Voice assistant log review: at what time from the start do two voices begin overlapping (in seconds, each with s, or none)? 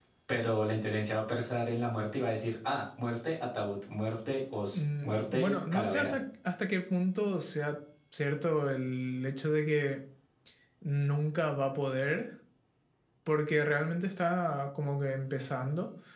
4.7 s